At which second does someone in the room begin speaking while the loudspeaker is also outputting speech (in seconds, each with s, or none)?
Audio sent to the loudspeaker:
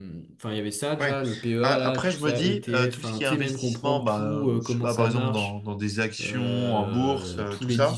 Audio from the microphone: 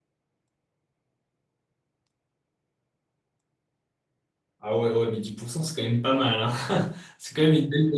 4.6 s